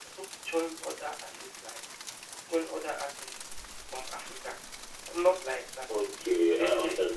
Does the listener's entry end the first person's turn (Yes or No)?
Yes